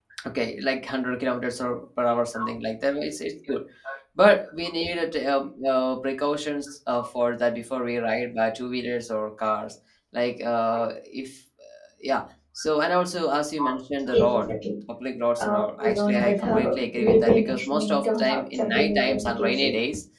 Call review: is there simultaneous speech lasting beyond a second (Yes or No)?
Yes